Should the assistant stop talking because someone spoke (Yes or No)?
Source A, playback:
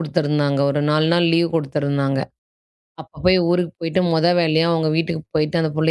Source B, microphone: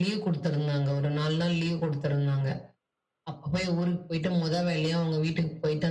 No